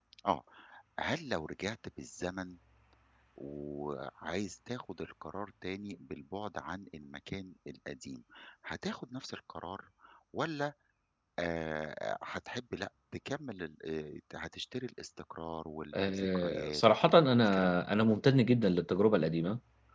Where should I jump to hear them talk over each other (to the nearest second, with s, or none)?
16 s